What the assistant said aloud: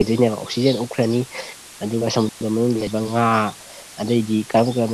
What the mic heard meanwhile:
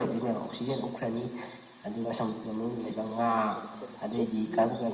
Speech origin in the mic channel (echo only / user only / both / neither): both